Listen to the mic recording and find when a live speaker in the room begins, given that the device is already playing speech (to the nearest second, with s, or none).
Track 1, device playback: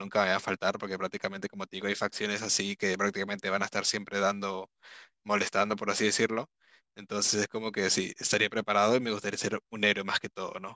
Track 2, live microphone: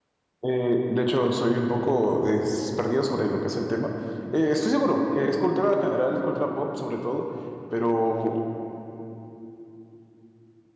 0 s